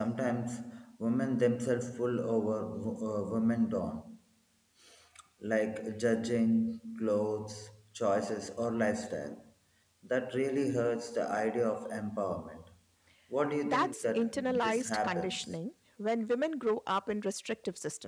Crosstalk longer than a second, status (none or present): present